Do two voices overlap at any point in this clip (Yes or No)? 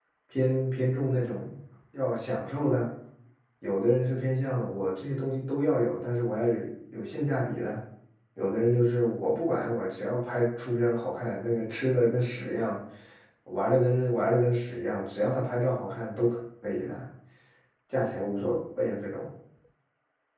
No